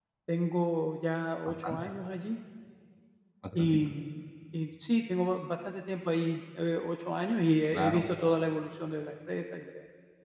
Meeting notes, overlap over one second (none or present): none